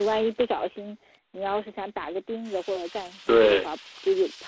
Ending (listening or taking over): listening